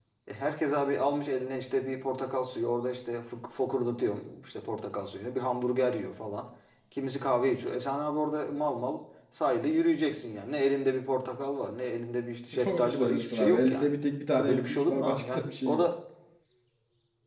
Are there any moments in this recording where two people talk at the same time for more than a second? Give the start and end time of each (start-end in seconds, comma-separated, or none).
12.6-13.9, 14.4-15.8